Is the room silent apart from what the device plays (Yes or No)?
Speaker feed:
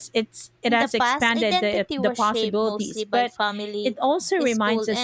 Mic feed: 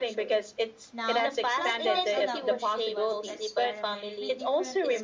No